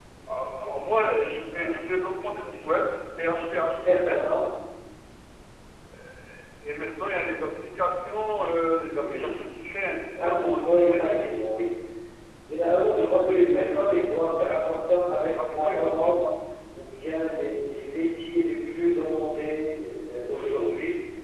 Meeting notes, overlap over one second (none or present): present